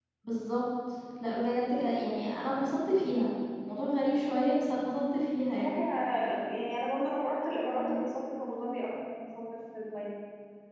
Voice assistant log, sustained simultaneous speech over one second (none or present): none